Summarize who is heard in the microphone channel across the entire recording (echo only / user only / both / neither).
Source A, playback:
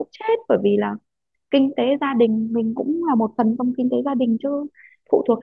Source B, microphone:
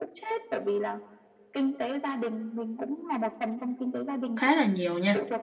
both